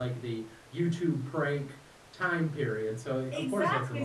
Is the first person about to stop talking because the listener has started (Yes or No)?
Yes